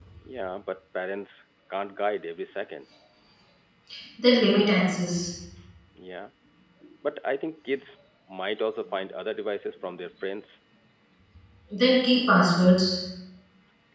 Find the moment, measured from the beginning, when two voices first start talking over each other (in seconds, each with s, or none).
none